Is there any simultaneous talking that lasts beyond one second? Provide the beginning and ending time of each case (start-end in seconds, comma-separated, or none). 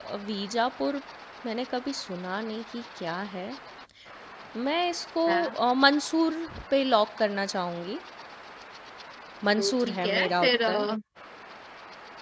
9.6-10.9